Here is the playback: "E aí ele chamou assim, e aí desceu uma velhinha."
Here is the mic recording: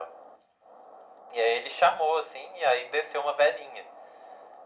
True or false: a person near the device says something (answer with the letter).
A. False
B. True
A